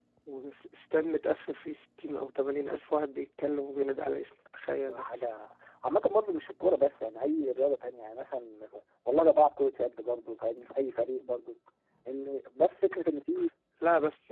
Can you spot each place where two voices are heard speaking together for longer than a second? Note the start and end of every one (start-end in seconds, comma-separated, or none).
none